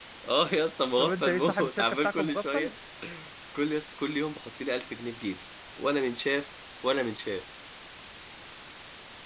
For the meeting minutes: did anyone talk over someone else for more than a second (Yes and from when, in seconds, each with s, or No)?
Yes, from 1.0 s